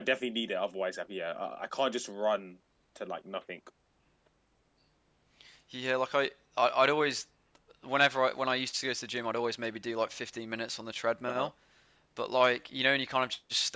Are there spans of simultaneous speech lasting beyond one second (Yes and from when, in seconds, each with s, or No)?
No